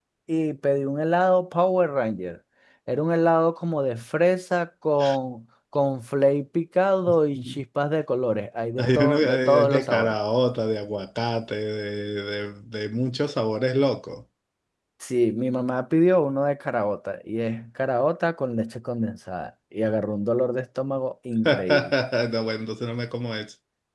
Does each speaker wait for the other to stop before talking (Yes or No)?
No